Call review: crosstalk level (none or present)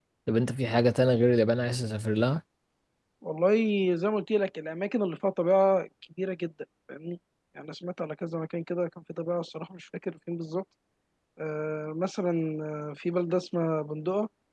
none